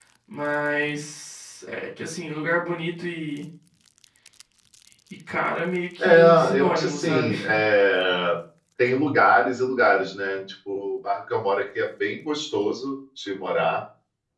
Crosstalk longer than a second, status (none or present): present